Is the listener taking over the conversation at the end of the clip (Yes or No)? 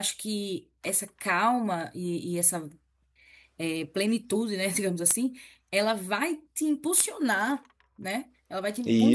No